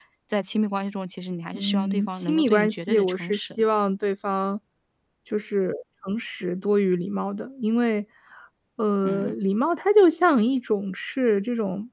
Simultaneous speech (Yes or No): Yes